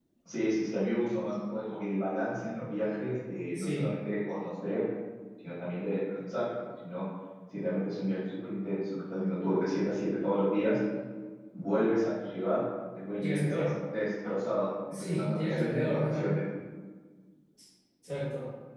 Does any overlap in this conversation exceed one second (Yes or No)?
Yes